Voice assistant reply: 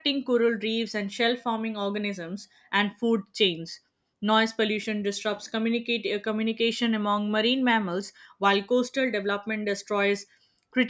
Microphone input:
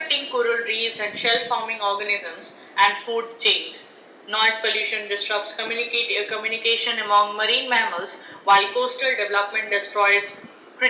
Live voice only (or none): none